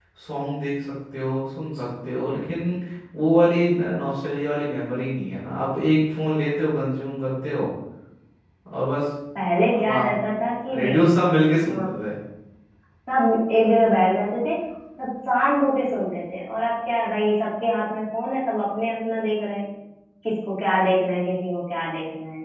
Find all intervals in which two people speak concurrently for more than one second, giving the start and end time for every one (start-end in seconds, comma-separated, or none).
none